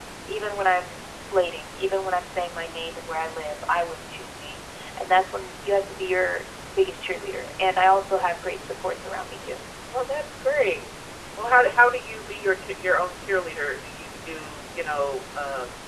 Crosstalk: none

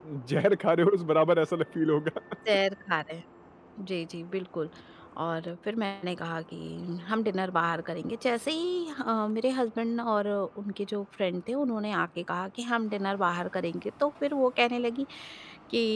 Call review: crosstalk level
none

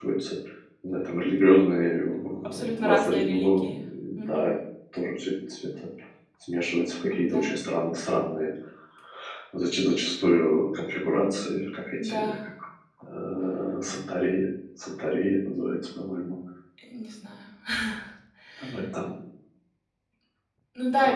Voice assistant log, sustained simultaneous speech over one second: present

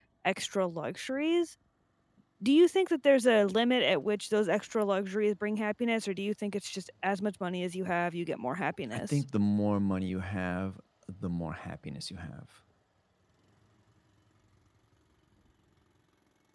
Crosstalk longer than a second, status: none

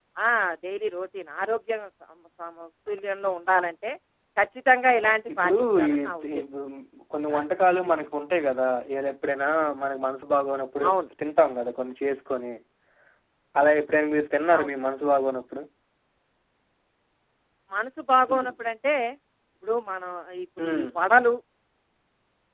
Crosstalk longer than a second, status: present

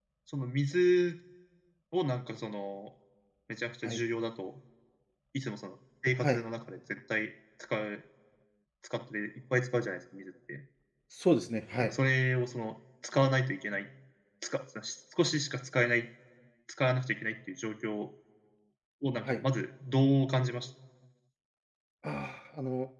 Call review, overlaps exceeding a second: none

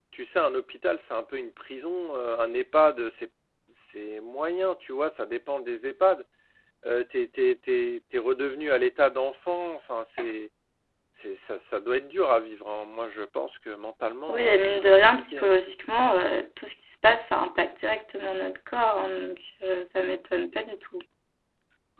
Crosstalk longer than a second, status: present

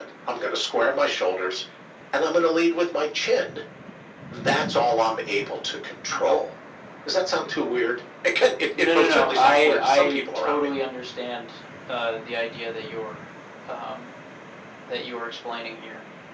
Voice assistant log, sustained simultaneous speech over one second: present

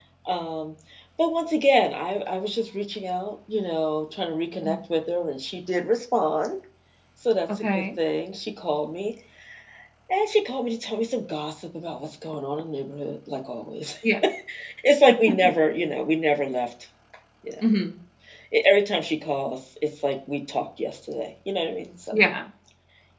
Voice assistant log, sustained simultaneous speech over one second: none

